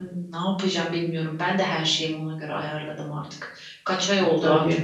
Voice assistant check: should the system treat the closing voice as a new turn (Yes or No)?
No